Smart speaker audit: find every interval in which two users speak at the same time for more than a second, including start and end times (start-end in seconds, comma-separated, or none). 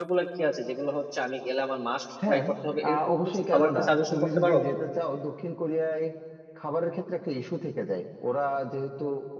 2.9-4.6